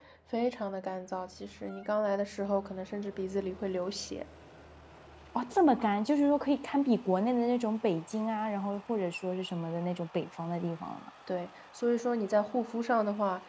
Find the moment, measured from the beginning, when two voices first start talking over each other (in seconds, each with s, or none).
none